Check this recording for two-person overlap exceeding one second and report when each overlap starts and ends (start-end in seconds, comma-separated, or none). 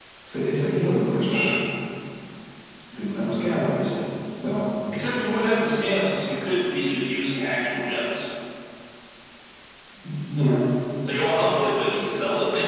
none